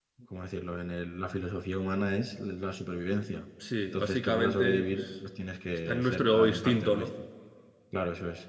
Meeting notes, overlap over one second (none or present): present